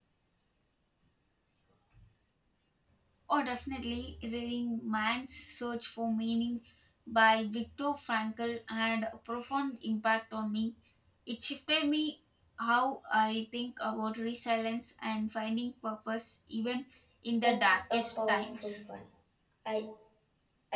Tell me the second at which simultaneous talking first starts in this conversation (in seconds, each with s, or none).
17.4 s